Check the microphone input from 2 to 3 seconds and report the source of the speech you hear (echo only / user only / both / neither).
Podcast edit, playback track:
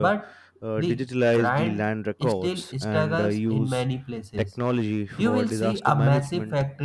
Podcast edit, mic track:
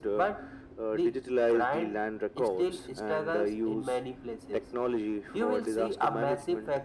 echo only